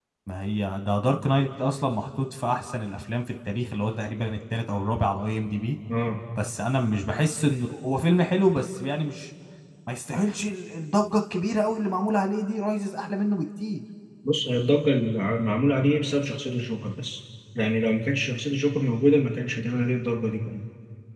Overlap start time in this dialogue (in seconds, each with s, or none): none